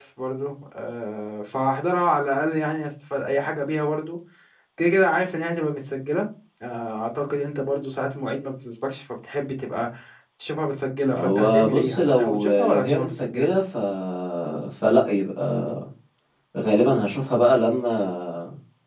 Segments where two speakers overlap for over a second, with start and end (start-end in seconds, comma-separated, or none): 11.1-13.5